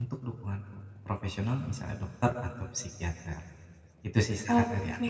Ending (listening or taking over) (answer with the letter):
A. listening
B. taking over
B